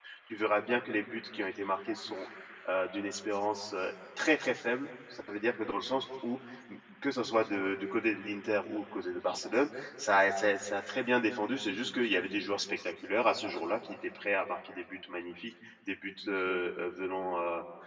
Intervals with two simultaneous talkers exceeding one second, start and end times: none

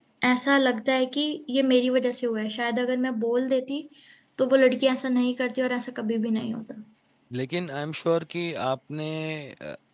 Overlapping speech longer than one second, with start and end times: none

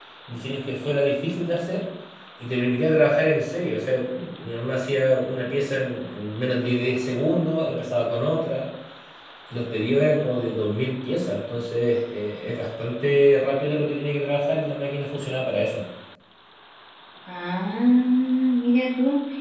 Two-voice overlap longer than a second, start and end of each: none

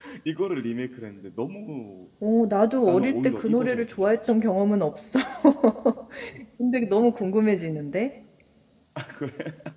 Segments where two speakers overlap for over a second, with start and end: 2.9-4.3

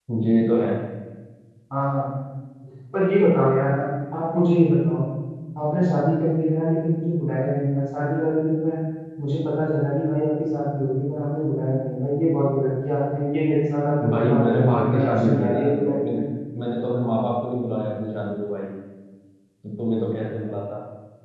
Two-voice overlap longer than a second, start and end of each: 14.1-16.2

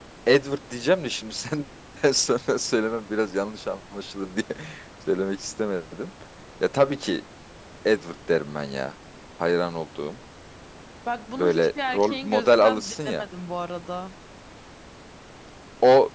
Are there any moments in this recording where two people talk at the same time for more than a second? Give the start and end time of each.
11.4-13.2

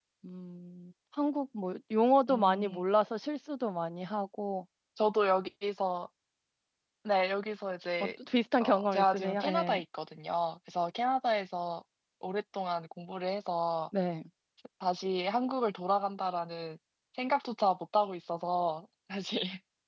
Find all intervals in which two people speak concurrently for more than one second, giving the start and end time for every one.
8.6-9.8

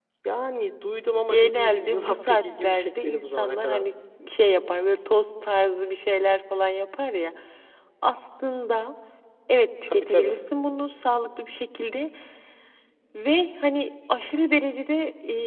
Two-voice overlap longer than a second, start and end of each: 1.3-3.8

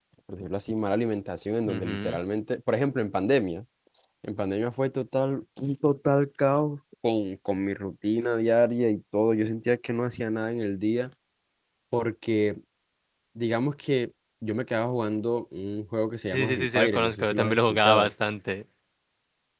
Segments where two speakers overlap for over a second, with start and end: 16.3-18.1

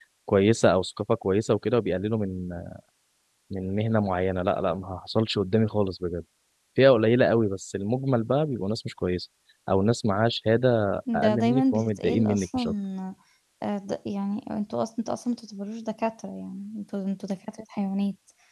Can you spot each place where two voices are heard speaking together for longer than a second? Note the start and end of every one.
11.1-12.6

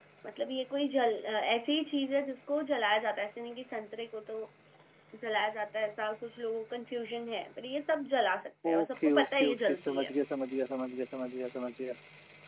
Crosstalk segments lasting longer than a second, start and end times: 8.7-10.1

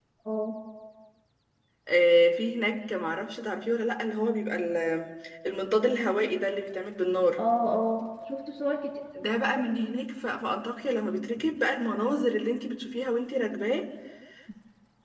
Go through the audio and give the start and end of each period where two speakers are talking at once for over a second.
none

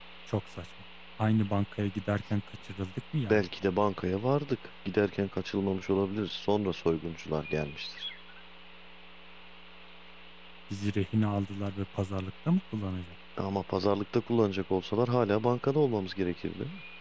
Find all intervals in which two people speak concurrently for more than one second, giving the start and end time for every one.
none

